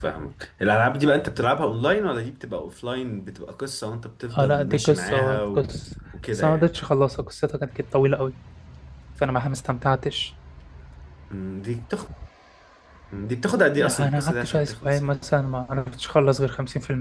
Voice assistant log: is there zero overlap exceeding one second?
No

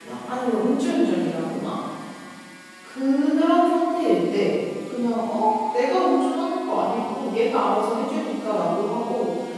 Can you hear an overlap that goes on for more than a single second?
No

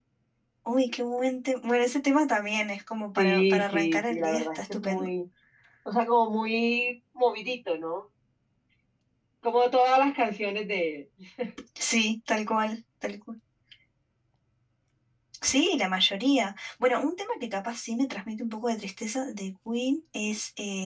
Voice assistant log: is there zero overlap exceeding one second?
No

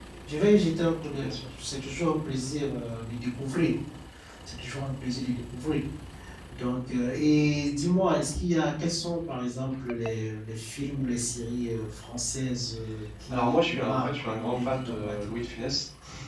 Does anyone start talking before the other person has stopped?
Yes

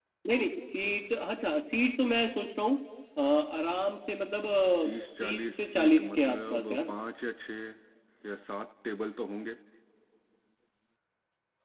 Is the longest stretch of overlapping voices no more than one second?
No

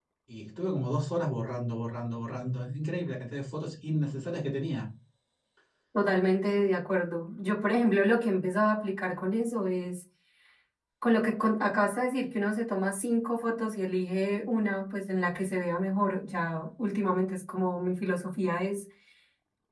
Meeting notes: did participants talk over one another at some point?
No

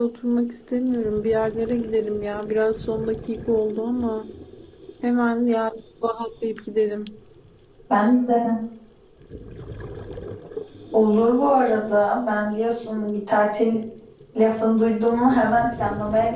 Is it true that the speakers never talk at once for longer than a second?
Yes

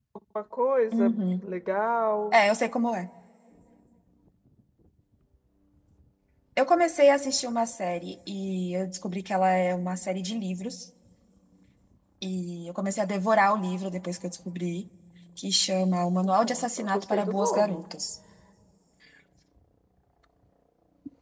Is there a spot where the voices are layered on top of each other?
Yes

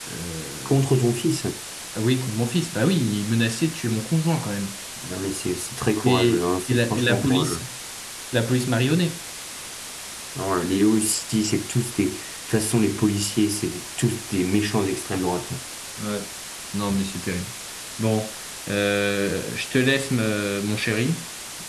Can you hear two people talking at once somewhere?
Yes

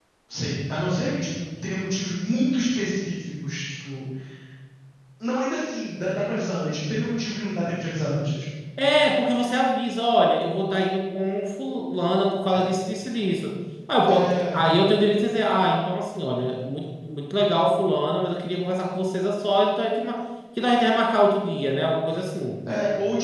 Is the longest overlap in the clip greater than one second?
No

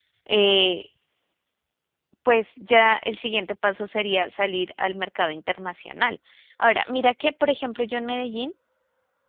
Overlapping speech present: No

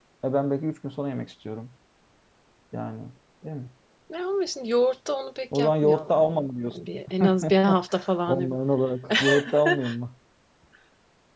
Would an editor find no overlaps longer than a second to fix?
No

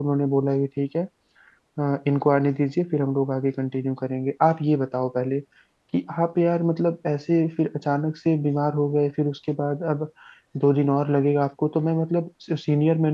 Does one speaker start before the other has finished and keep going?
No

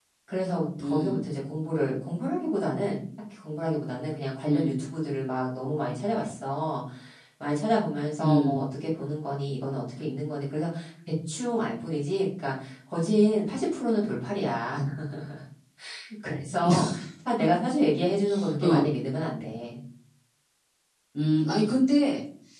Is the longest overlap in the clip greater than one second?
No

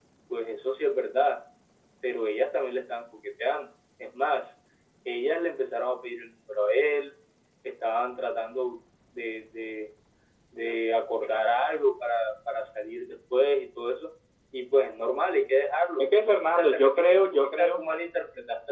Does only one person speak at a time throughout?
No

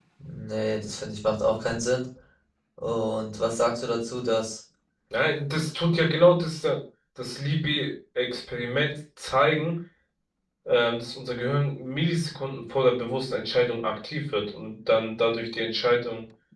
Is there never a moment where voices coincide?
Yes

